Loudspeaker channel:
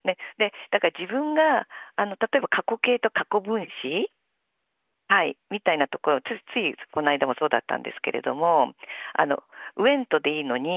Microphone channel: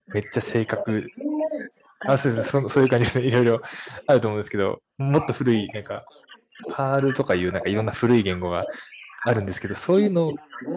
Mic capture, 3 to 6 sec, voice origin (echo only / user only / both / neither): both